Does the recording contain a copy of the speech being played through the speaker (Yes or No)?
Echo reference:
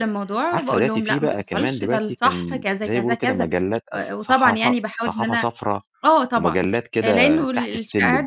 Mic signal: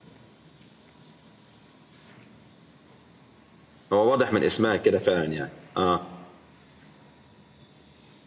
No